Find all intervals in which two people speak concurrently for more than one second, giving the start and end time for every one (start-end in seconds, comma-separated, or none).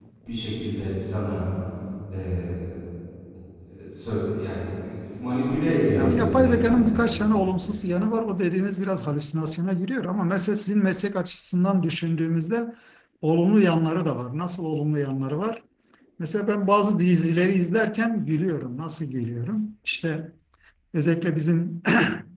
5.9-7.3